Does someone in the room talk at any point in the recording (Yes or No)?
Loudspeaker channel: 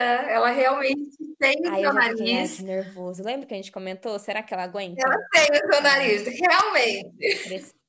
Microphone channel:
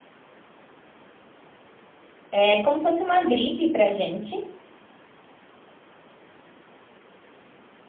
Yes